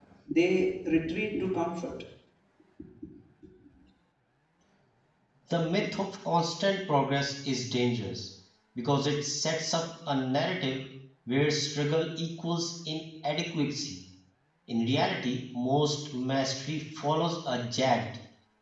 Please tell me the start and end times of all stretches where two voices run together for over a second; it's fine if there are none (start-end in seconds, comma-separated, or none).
none